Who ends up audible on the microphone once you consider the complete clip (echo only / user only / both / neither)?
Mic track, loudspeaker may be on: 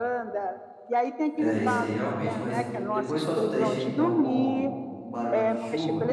both